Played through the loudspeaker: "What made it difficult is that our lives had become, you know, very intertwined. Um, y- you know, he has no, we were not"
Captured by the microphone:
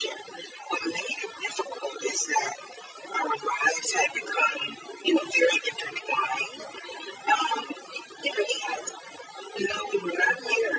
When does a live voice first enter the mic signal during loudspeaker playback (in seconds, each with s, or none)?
none